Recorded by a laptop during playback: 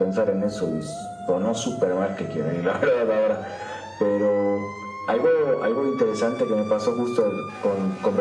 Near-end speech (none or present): none